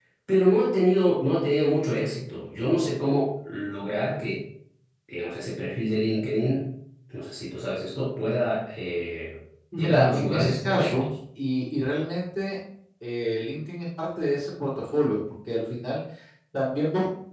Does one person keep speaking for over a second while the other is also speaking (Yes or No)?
Yes